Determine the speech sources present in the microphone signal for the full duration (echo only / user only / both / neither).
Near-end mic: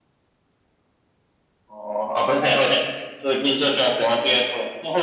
echo only